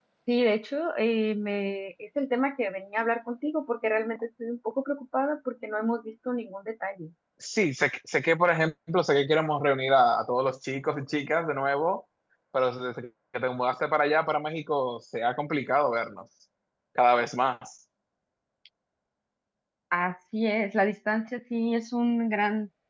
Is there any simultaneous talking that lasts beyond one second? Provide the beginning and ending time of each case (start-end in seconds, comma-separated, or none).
none